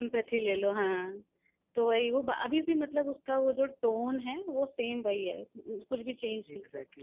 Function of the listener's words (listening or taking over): taking over